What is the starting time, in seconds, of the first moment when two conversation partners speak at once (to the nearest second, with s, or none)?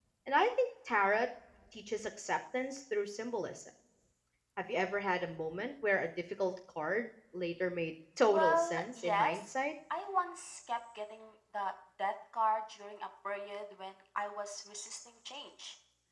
8 s